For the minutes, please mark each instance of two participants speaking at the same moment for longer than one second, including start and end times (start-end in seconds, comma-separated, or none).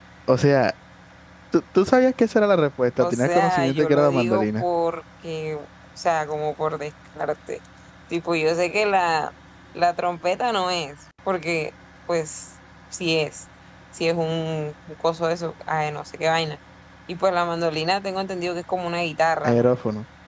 3.0-4.6